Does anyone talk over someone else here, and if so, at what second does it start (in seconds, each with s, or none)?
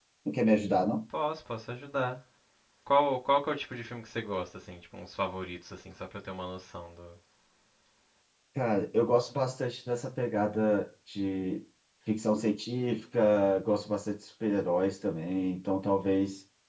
none